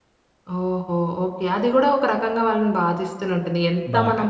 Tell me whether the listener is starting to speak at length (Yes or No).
No